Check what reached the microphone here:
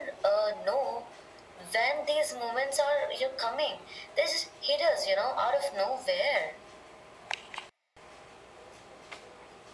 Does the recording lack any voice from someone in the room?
Yes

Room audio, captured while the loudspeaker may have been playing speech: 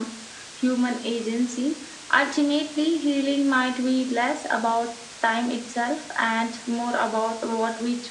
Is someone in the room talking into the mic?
No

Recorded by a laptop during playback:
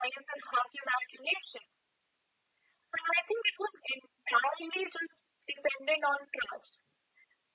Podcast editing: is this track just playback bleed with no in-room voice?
Yes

